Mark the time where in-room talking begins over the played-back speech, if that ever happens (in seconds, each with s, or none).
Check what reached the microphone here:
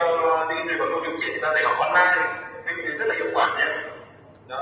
none